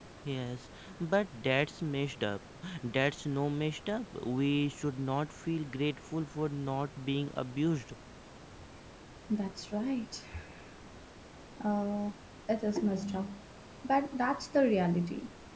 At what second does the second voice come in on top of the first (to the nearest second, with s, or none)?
none